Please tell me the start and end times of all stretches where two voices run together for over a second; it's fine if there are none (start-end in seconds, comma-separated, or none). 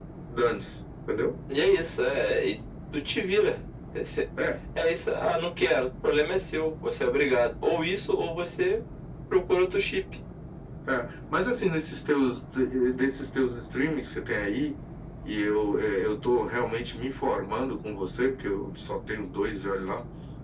none